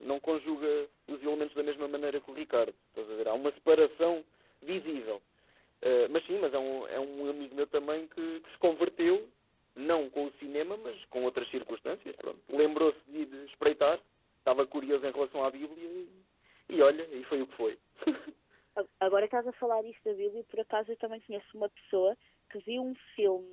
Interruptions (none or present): none